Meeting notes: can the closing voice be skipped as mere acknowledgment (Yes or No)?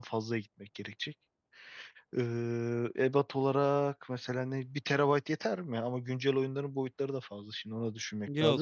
No